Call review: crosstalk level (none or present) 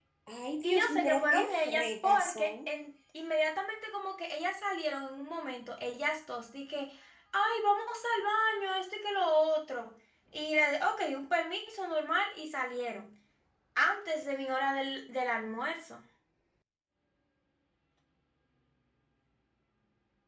present